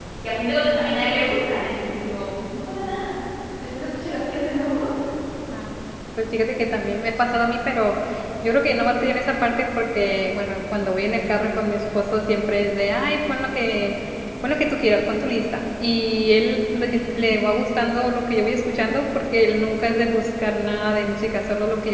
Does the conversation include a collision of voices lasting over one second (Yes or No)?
No